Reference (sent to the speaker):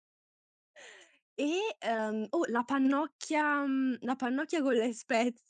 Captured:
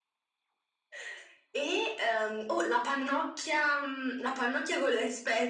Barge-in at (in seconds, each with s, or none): none